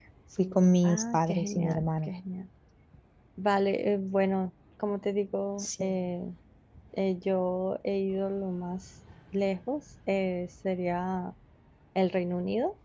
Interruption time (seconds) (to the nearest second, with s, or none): 1 s